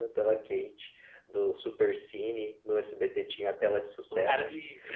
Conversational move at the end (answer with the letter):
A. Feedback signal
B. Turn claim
B